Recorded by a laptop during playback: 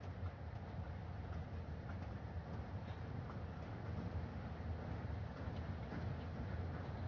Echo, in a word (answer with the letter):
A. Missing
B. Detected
A